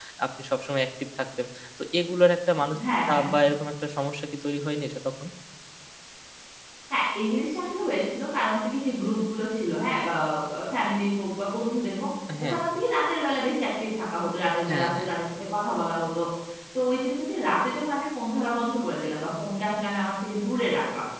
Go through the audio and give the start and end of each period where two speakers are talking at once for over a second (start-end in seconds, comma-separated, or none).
none